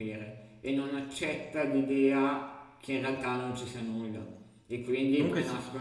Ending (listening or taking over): listening